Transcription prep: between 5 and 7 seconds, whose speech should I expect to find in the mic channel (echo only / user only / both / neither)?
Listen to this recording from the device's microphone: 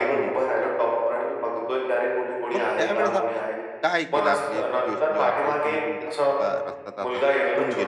both